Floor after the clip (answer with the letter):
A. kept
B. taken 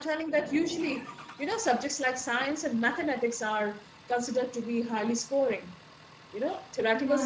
A